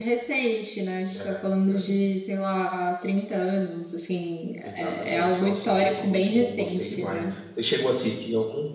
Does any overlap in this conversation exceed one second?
Yes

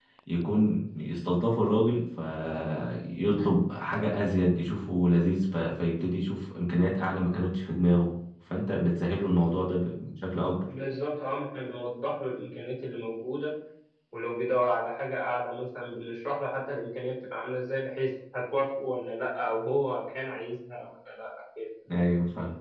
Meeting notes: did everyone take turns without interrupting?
Yes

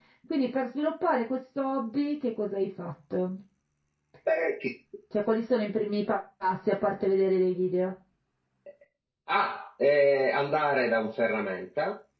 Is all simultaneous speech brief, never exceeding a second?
Yes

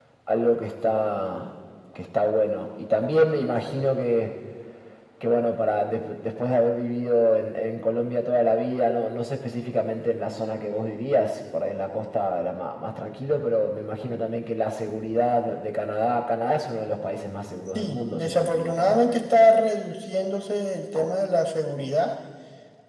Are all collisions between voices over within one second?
No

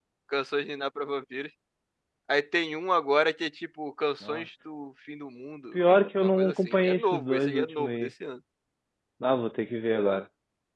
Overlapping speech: Yes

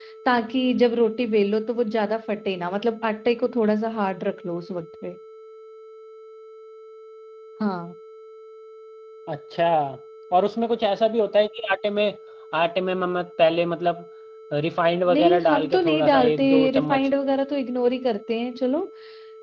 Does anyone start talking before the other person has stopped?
Yes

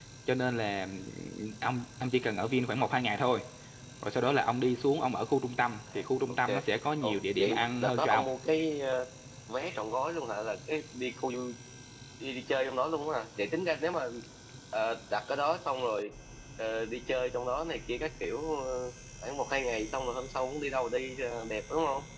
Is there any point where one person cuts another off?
Yes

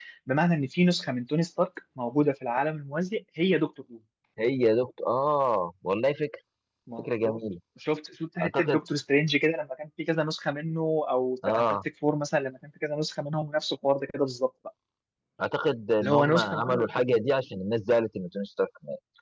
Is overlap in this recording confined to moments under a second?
No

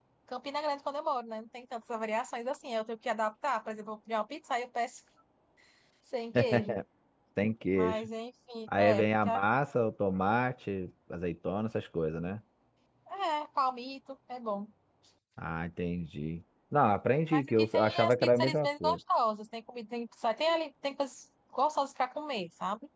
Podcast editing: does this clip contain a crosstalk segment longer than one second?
Yes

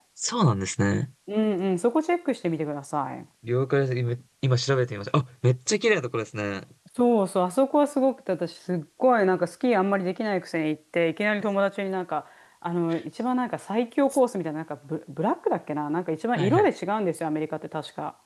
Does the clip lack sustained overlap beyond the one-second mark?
Yes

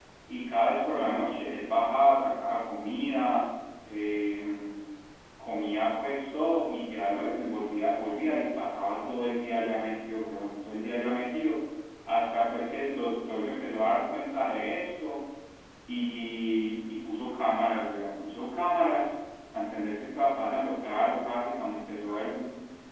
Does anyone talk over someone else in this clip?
No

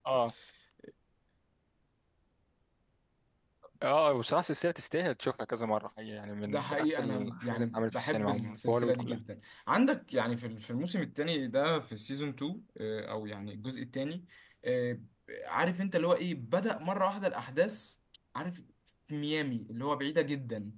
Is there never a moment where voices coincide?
No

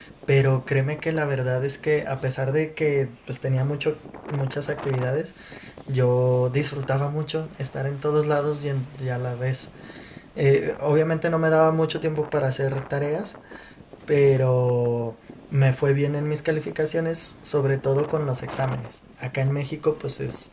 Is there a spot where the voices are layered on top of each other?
No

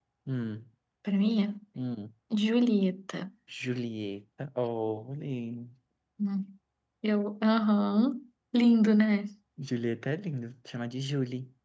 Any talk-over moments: No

